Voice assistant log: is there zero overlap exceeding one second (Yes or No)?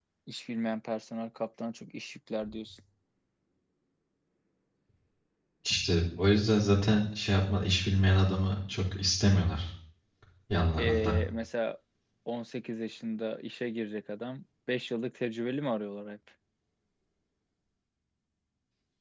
Yes